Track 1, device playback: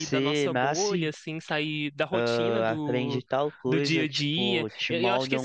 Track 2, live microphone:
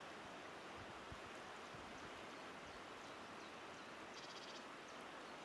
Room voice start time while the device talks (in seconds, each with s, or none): none